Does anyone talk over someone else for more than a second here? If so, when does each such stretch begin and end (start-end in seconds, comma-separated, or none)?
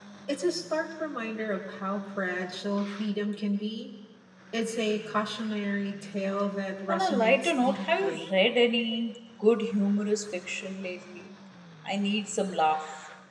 6.9-8.3